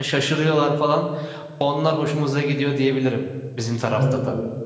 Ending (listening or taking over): taking over